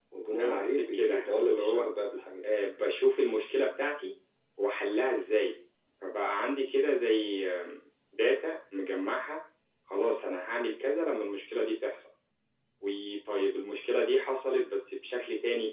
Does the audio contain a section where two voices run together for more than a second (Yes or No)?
Yes